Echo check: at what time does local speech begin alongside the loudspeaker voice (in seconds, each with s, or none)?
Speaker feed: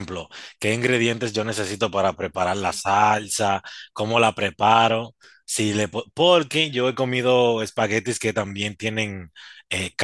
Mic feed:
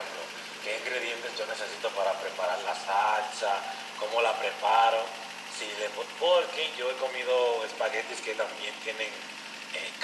none